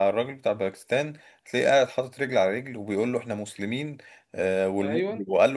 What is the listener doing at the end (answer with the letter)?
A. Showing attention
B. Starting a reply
A